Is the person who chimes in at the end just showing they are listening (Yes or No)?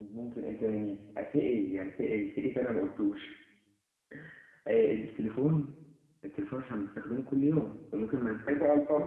No